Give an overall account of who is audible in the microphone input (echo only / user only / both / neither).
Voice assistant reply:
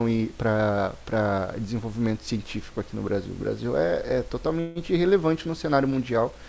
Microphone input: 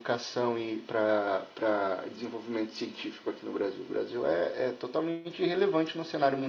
echo only